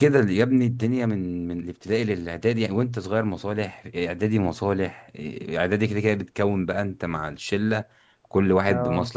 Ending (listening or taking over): listening